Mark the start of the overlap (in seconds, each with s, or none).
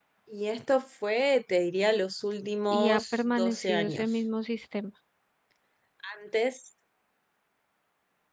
2.7 s